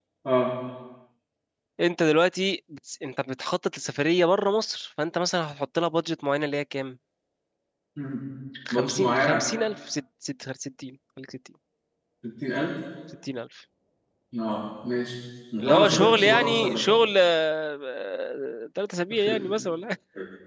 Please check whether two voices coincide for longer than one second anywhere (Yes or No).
Yes